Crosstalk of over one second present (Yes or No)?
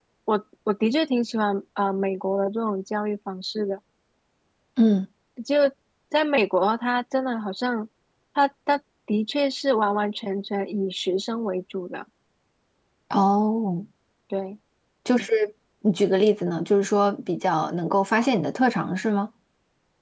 No